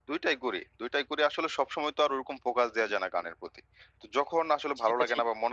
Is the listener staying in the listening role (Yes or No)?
Yes